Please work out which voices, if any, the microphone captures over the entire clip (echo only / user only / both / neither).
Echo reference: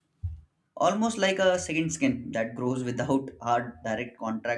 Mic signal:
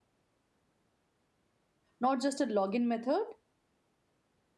user only